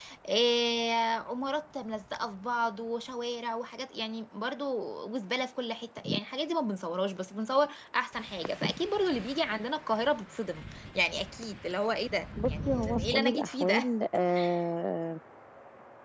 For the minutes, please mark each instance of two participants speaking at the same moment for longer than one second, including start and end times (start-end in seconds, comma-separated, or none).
12.5-13.9